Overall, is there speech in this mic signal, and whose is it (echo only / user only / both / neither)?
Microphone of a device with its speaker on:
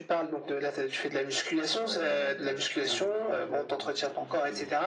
both